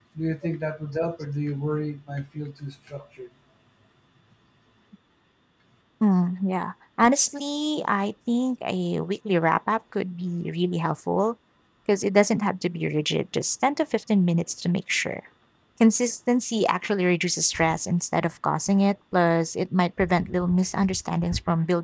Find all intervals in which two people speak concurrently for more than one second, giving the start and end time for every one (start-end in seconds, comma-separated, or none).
none